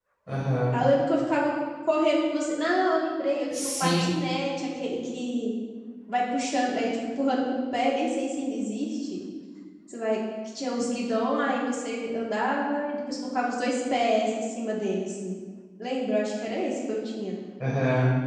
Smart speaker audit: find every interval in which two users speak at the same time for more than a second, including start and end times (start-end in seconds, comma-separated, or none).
none